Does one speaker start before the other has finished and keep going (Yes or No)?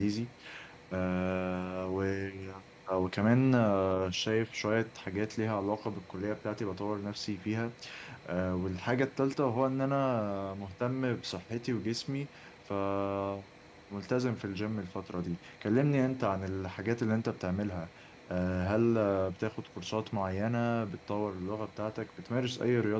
No